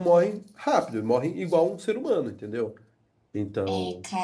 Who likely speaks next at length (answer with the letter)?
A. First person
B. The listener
B